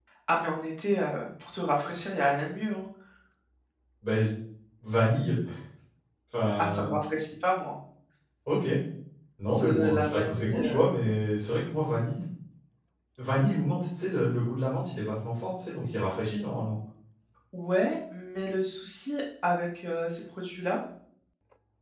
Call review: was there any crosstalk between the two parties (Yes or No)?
Yes